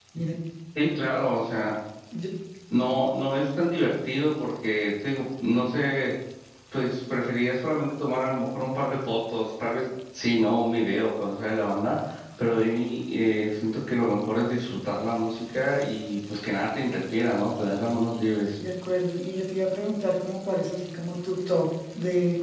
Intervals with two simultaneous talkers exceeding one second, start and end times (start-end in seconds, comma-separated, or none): none